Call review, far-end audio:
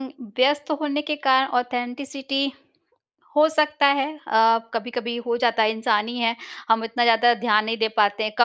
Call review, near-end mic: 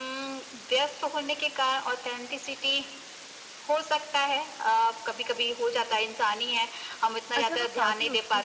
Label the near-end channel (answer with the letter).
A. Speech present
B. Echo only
A